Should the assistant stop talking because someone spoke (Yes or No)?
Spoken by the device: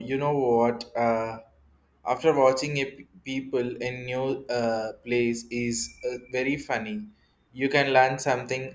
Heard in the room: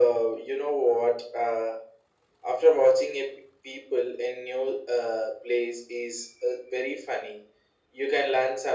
No